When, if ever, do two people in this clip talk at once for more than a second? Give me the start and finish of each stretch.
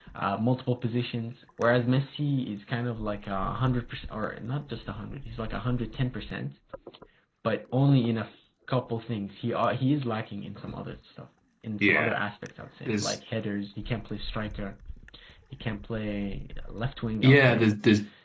none

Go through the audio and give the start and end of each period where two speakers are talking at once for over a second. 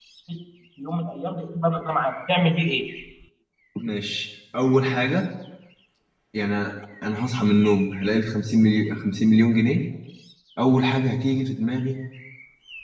none

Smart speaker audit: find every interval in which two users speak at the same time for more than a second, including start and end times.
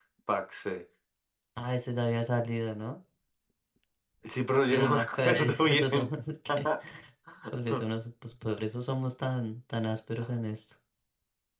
4.7-6.1

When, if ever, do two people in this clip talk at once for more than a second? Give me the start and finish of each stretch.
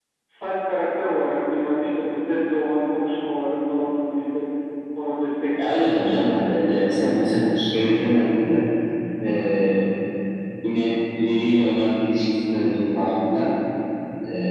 5.6-7.1

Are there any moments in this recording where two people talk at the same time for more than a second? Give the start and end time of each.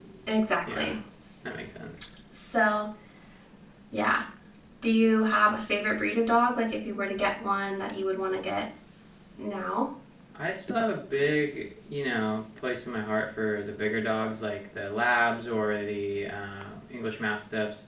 none

